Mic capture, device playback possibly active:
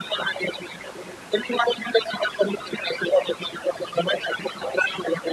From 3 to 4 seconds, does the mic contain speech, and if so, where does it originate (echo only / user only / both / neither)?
echo only